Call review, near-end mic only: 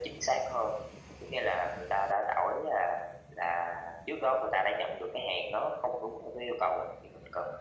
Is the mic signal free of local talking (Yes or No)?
Yes